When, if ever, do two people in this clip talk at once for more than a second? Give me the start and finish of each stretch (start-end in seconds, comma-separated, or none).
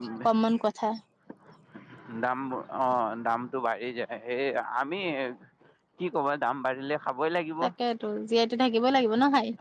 none